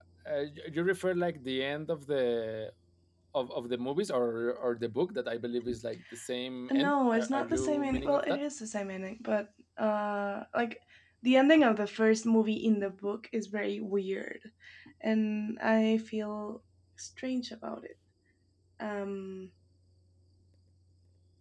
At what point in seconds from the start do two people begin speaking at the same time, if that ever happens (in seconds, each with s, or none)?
6.7 s